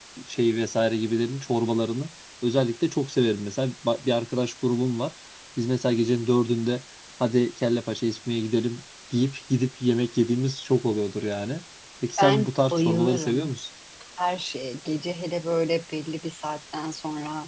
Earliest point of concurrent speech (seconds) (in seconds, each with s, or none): 12.2 s